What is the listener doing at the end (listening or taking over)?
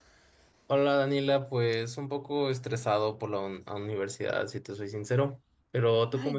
taking over